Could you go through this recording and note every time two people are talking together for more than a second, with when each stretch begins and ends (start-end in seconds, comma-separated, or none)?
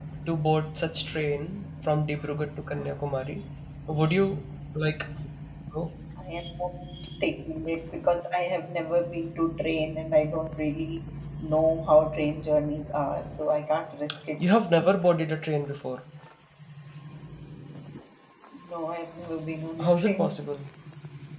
none